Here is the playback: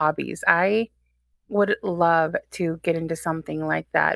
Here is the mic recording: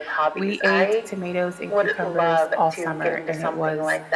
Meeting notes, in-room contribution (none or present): present